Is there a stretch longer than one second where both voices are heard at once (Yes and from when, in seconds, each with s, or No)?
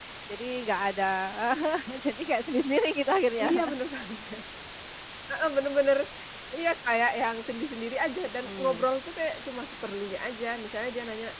No